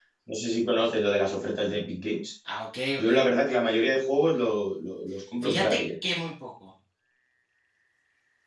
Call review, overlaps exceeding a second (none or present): none